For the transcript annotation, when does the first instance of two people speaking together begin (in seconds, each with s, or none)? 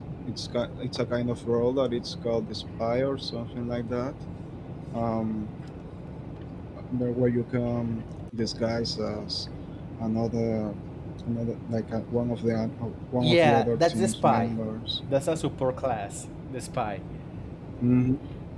13.2 s